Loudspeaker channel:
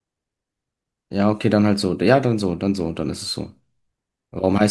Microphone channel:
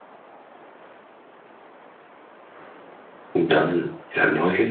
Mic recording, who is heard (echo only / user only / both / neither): user only